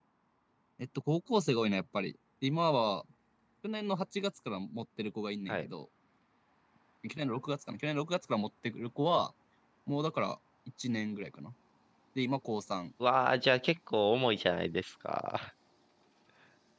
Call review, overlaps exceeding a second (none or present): none